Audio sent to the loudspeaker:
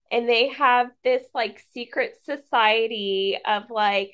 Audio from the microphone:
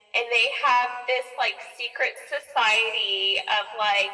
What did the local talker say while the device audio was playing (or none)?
none